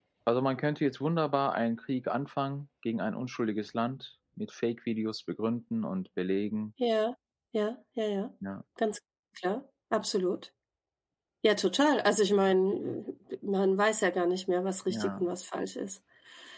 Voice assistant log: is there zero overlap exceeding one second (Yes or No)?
Yes